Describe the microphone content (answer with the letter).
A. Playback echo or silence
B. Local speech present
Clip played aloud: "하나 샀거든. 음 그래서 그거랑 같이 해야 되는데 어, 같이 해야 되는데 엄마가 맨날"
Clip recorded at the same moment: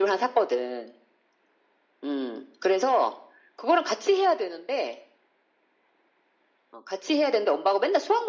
A